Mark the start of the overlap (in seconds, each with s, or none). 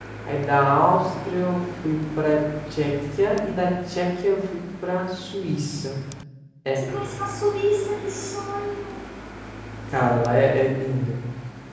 none